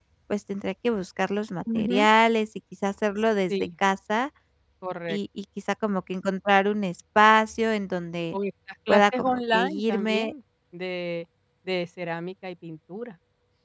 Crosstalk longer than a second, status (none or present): present